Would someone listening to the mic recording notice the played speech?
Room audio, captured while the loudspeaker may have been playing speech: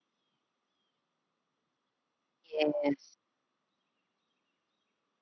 No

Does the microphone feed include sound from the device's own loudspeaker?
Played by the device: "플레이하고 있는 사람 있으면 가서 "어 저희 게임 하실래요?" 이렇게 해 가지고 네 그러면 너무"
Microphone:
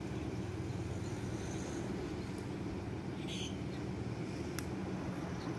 No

